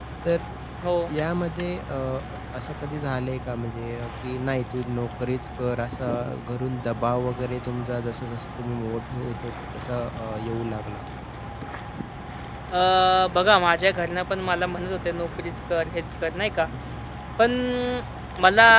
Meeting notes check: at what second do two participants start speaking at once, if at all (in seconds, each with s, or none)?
none